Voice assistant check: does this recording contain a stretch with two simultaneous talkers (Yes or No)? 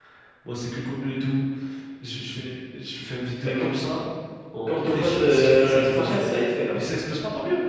Yes